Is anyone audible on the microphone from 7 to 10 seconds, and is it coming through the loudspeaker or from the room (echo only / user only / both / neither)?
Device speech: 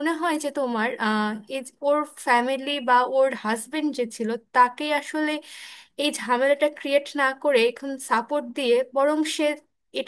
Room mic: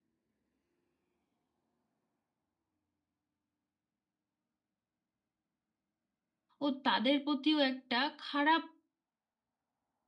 user only